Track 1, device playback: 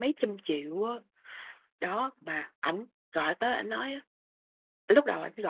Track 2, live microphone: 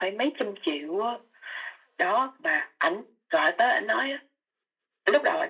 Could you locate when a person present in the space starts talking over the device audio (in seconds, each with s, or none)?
none